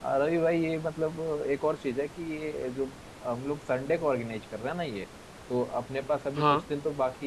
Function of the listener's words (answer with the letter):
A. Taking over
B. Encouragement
B